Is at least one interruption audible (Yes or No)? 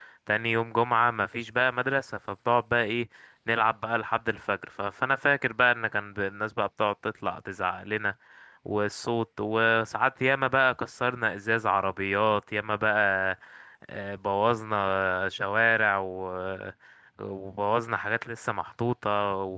No